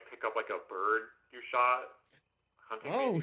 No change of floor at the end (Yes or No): No